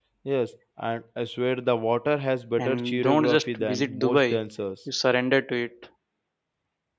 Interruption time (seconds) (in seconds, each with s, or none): 2.6 s